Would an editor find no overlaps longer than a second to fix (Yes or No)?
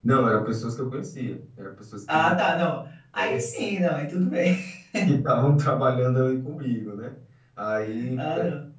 Yes